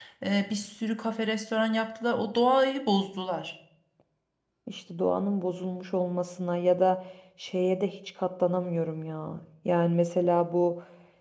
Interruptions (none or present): none